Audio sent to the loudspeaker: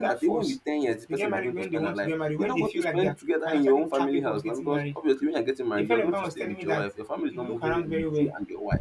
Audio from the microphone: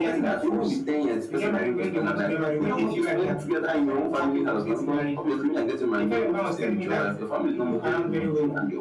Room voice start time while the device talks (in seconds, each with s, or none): none